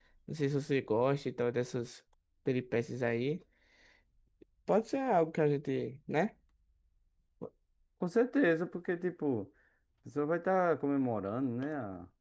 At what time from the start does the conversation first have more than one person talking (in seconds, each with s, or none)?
none